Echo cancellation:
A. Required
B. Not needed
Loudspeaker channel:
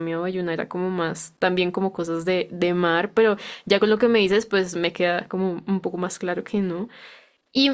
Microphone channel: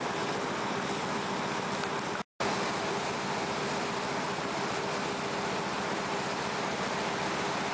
B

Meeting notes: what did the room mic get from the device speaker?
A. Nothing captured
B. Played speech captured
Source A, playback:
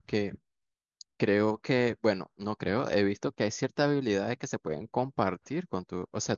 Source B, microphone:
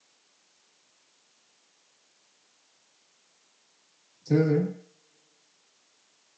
A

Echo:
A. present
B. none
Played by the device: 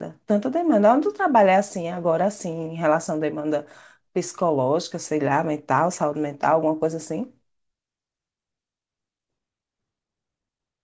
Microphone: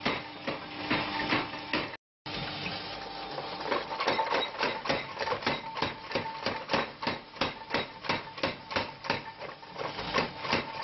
B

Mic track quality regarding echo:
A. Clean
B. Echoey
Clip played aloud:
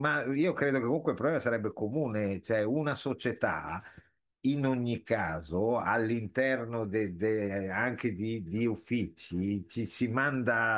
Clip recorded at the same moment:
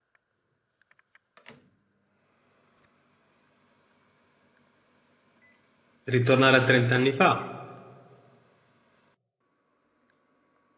A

